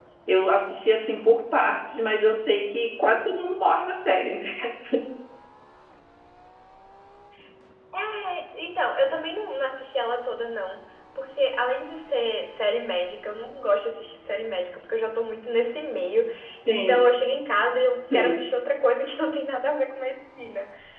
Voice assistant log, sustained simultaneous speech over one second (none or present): none